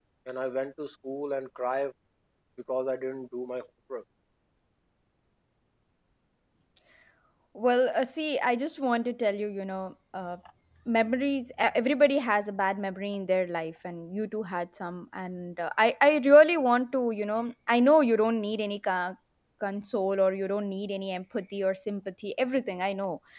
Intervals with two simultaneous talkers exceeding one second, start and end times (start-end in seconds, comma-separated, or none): none